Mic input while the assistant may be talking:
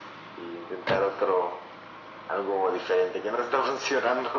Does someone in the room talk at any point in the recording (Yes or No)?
No